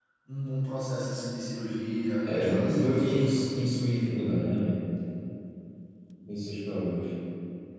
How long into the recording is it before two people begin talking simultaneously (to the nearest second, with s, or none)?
2 s